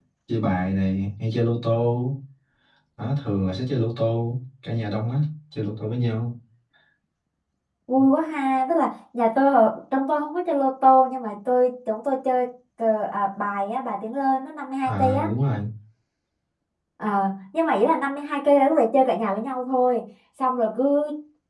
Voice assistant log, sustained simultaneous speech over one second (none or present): none